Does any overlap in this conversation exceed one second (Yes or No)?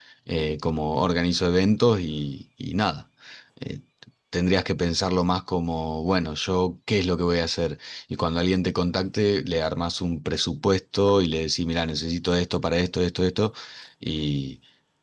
No